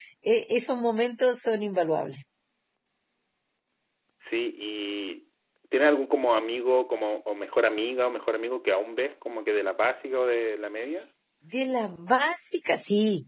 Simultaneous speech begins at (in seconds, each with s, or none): none